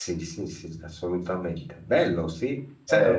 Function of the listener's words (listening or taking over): listening